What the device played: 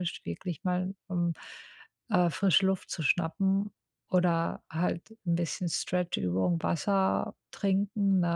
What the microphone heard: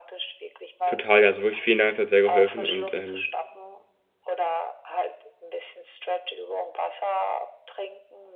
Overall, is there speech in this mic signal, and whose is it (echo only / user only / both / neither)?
both